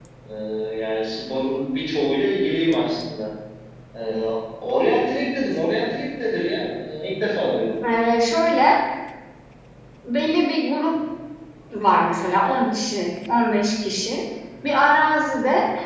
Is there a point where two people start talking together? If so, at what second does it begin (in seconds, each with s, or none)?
none